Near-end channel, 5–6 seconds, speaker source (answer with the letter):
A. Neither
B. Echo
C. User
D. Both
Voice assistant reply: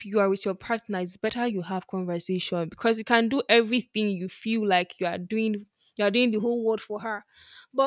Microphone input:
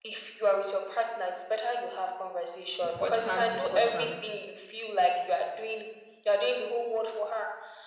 B